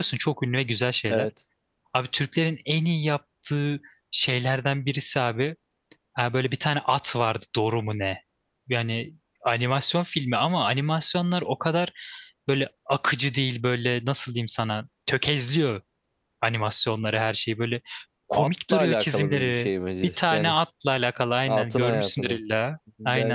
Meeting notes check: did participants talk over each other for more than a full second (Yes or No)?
Yes